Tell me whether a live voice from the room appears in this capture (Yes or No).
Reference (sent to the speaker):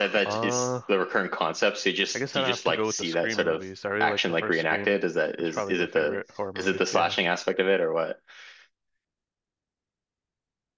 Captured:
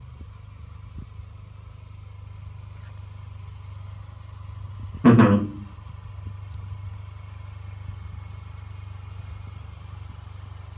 Yes